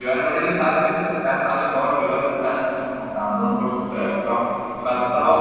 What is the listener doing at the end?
listening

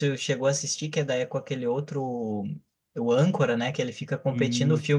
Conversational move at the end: listening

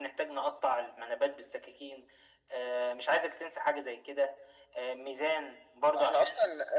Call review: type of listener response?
taking over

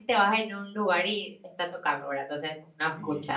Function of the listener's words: listening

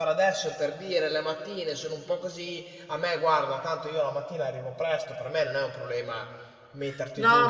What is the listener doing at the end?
taking over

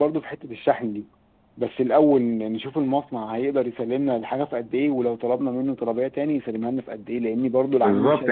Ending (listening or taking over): taking over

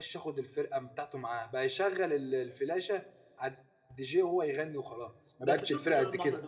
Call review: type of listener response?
taking over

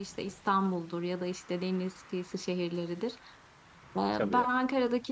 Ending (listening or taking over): listening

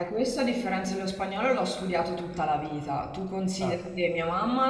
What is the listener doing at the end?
listening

